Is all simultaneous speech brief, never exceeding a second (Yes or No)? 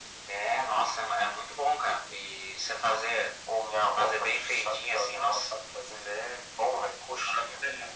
No